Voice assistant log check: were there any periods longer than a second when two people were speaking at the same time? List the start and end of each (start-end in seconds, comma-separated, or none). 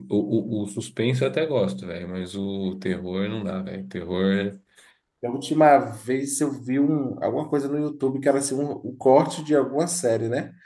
none